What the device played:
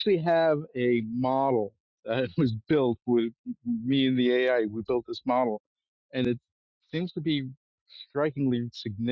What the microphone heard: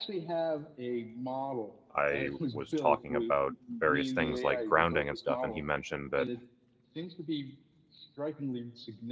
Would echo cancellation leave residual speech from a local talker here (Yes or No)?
Yes